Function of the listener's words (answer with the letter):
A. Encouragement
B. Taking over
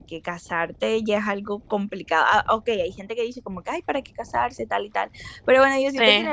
A